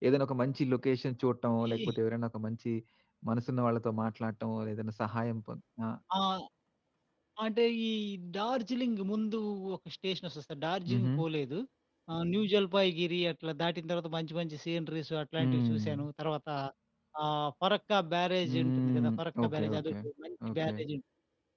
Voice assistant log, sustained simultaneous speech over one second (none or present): present